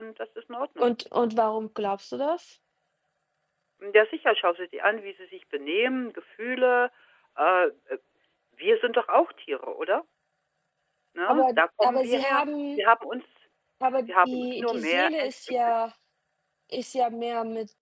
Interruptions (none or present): present